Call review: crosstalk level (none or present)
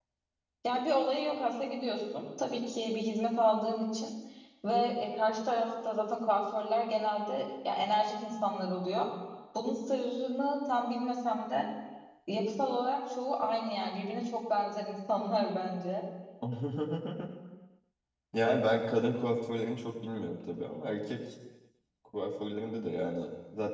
none